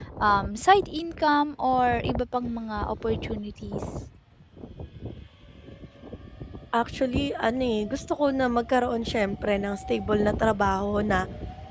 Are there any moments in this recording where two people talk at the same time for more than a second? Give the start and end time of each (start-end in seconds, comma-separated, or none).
none